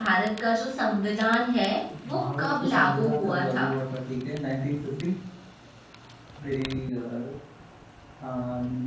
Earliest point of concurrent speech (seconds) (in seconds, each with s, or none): 2.1 s